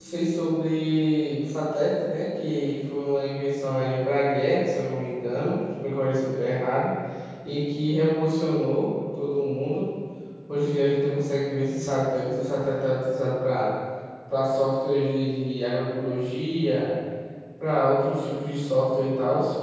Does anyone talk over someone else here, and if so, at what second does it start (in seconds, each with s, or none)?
none